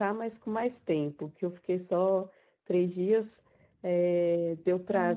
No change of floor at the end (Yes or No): Yes